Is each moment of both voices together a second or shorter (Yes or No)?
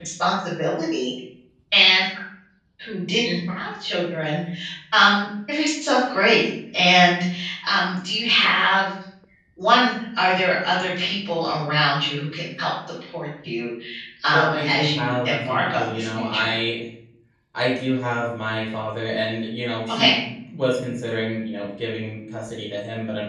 No